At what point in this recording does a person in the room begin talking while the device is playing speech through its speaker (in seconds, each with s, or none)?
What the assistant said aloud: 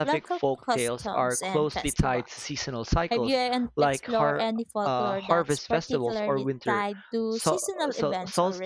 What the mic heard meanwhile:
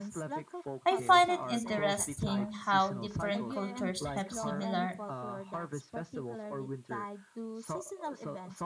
0.8 s